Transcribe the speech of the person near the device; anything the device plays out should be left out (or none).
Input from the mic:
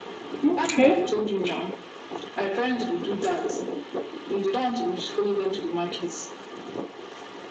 Okay.